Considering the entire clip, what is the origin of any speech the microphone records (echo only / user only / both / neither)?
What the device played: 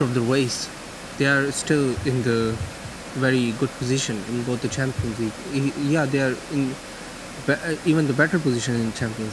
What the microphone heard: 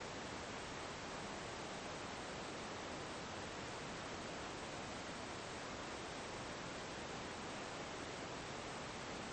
neither